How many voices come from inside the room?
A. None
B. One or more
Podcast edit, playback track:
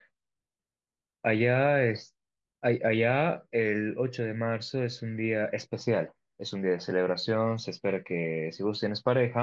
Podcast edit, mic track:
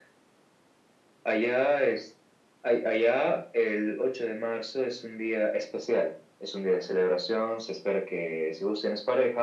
A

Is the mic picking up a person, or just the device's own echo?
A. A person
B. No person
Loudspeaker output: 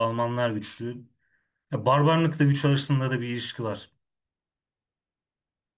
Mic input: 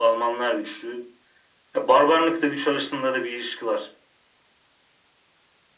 B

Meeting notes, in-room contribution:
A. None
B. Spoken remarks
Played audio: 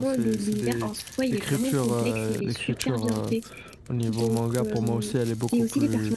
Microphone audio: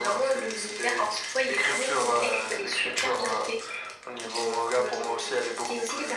A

